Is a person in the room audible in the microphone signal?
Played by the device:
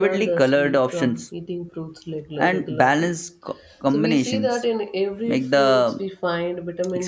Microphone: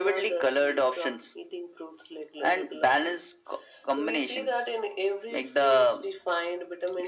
No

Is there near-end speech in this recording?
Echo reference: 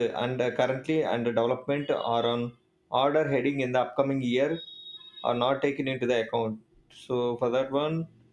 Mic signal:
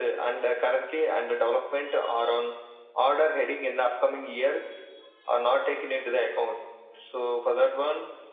No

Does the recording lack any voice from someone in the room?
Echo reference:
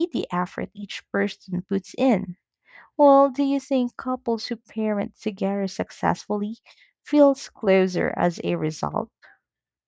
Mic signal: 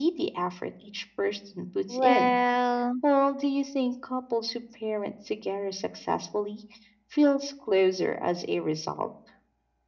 No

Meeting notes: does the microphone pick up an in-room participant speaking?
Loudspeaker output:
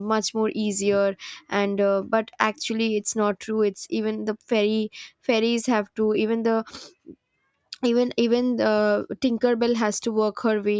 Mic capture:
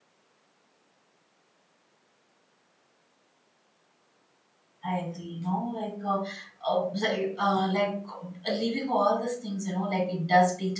Yes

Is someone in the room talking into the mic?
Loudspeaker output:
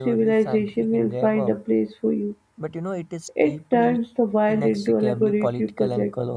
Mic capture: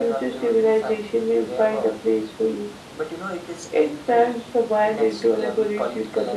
No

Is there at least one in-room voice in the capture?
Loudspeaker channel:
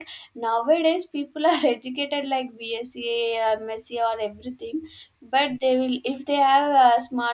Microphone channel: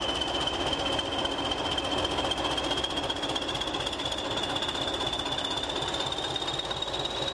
No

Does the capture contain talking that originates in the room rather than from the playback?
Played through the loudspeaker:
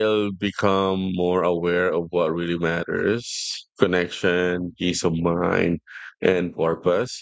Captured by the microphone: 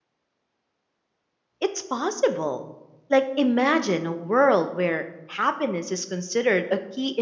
Yes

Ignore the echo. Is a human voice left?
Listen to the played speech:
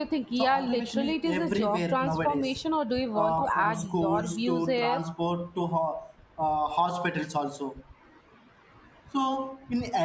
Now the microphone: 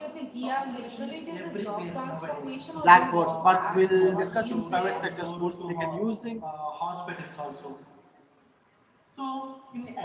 Yes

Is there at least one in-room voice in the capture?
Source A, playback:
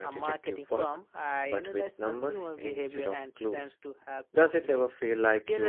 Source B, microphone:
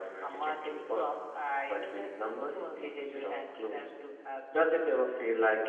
No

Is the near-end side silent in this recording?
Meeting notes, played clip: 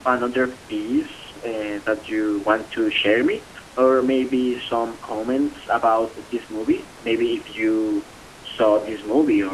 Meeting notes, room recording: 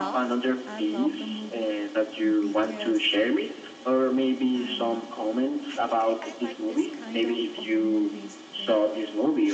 No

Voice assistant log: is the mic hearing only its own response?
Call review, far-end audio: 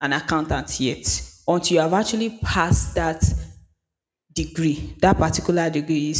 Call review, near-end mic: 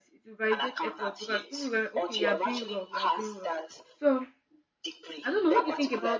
No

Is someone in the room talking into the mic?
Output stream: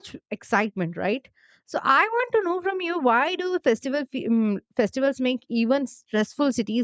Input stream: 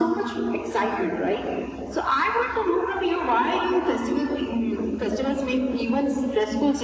No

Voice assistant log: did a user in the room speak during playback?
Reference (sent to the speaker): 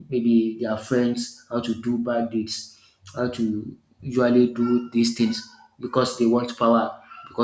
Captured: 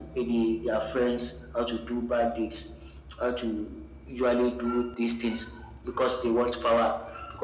No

